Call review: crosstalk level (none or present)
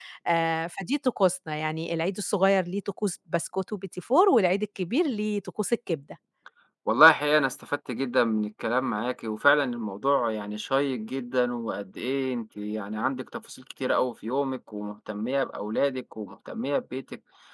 none